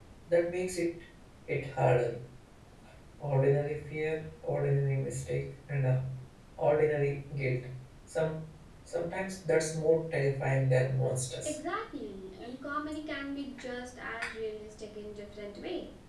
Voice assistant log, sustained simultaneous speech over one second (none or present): none